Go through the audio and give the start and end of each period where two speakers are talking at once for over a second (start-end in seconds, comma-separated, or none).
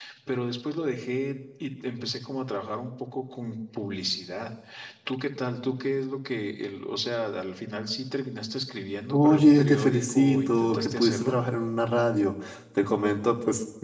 9.1-11.4